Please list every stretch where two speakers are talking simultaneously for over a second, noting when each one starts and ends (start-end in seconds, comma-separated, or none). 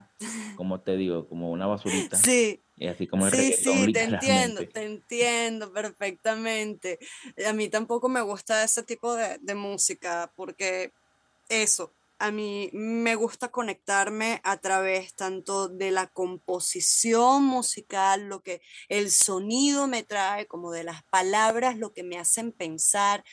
3.2-4.6